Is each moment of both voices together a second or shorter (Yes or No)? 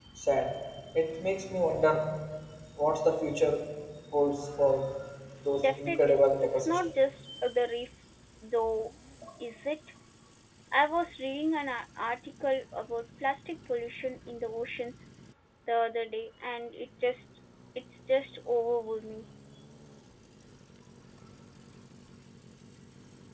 No